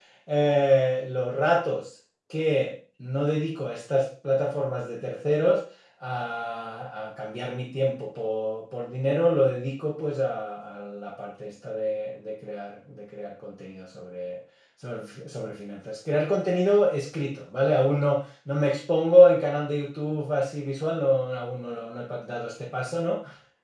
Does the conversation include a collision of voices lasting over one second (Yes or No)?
No